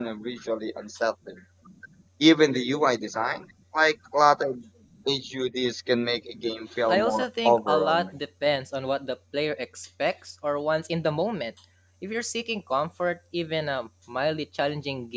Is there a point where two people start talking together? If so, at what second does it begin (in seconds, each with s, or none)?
6.8 s